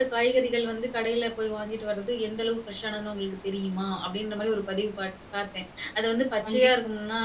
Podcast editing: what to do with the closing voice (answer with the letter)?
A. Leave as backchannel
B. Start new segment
A